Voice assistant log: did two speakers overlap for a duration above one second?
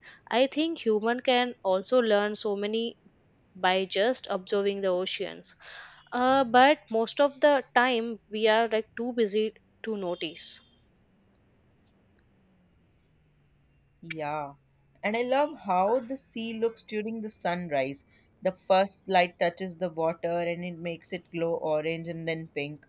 No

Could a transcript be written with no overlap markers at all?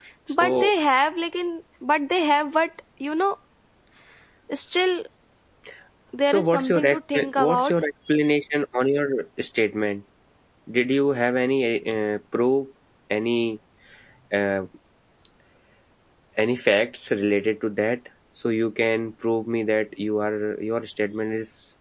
No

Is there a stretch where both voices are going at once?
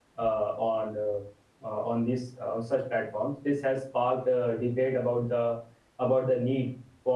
No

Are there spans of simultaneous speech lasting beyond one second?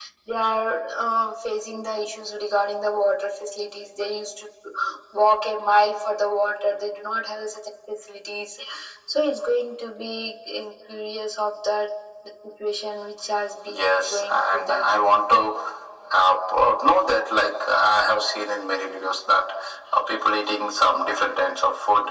Yes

